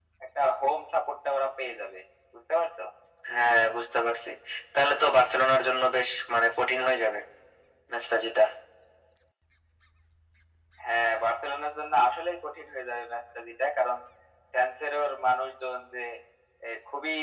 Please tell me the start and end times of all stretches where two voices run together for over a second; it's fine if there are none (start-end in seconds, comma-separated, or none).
none